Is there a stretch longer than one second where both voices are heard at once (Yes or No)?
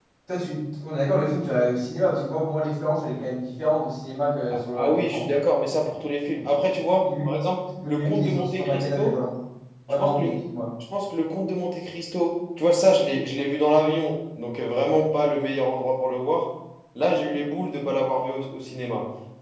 Yes